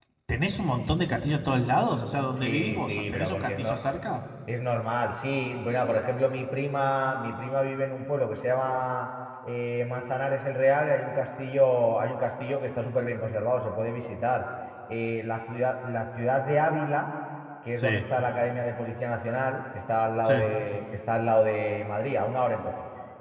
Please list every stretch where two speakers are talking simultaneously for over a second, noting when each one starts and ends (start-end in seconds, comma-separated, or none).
2.4-3.7